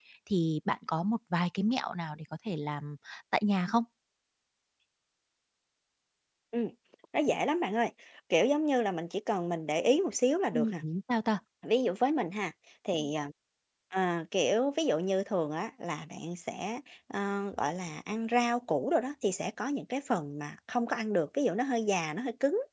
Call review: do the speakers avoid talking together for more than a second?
Yes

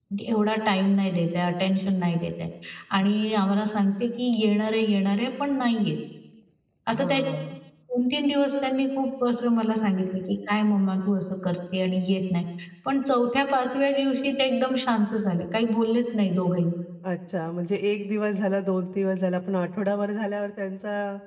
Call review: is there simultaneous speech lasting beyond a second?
No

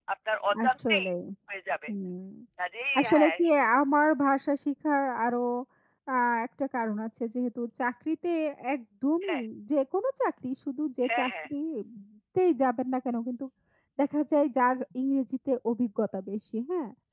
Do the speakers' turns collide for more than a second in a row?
No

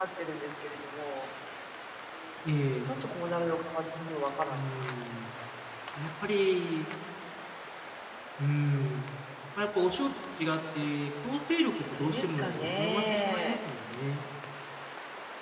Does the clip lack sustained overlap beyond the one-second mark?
No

